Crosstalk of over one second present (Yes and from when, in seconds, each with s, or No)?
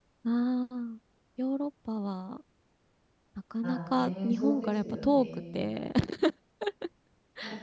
Yes, from 3.6 s